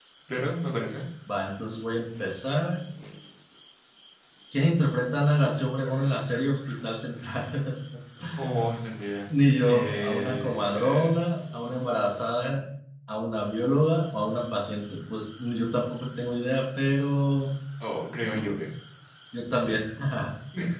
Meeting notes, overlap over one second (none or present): present